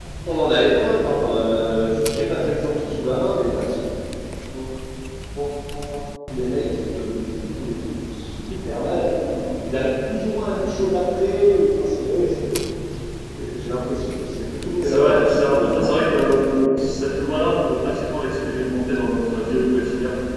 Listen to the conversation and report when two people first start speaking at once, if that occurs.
14.8 s

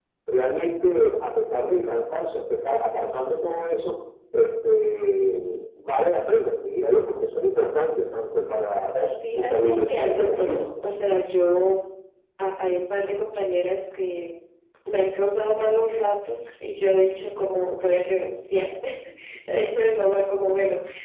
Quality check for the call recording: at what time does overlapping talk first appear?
8.9 s

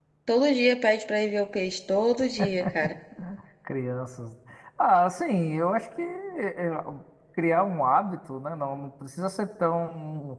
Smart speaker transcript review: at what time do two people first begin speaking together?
none

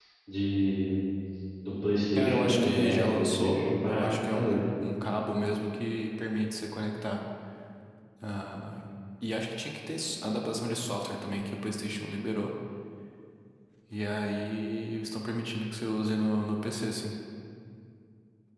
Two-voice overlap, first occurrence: 2.2 s

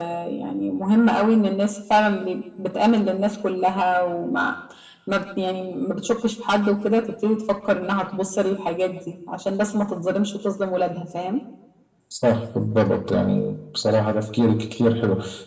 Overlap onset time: none

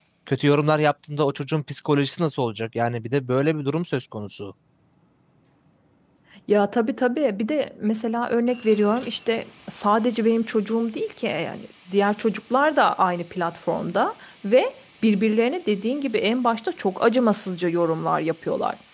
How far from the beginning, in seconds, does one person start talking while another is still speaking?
none

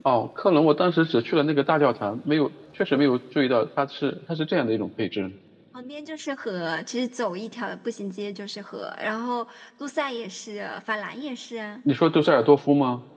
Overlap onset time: none

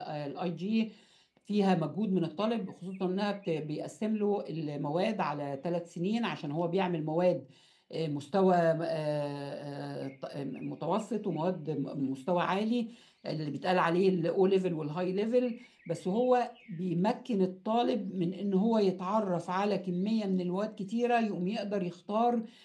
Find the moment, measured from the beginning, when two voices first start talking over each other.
none

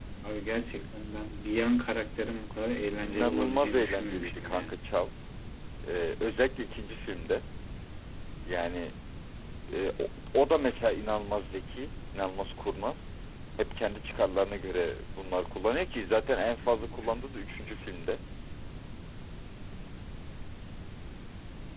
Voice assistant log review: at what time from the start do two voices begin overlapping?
3.0 s

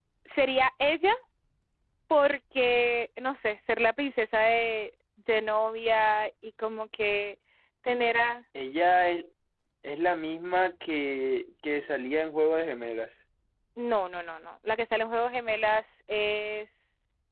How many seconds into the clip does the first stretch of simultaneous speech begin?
none

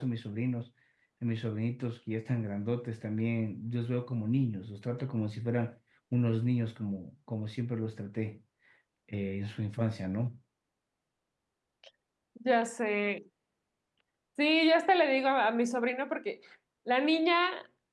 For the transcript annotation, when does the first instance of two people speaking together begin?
none

